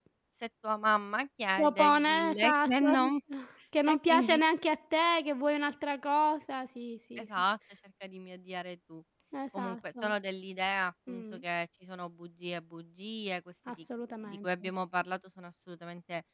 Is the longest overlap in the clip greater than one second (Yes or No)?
Yes